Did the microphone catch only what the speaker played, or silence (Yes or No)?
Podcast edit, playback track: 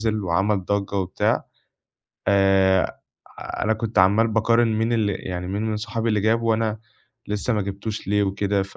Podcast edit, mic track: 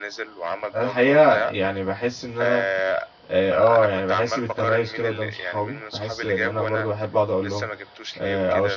No